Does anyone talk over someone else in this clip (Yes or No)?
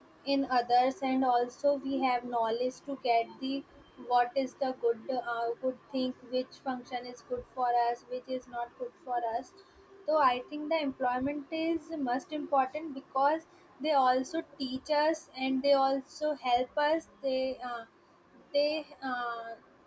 No